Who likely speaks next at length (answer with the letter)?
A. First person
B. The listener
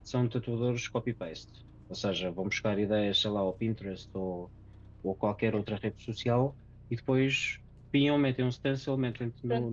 B